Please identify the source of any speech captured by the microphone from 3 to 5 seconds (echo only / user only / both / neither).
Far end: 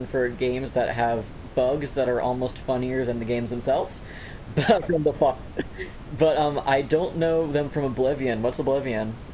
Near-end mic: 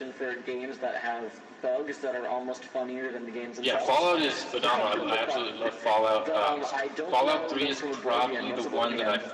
both